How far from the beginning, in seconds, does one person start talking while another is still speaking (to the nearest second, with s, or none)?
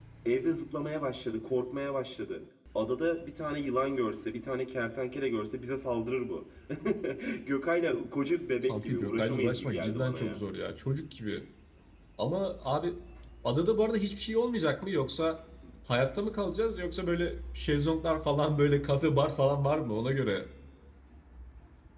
9 s